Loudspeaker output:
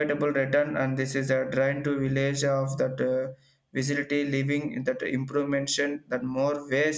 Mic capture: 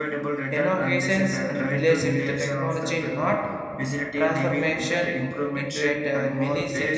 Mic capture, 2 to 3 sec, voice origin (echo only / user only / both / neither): both